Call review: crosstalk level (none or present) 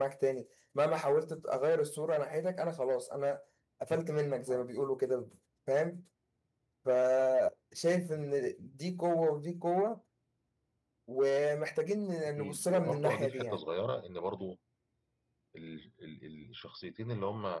present